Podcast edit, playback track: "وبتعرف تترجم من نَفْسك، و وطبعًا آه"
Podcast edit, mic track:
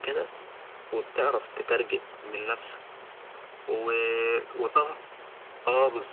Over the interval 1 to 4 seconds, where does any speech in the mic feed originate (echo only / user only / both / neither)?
echo only